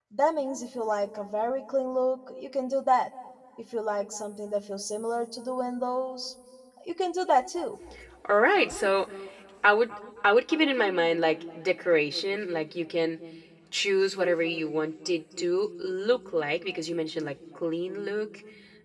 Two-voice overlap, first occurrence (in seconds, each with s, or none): none